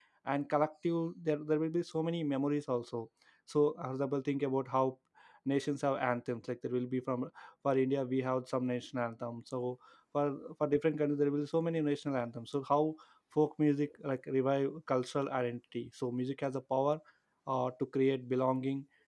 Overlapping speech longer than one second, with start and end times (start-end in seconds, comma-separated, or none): none